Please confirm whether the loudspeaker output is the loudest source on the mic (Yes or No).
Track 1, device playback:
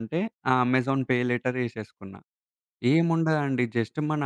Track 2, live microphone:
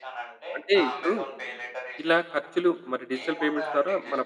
No